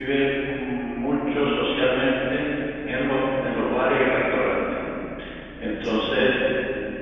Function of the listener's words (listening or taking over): listening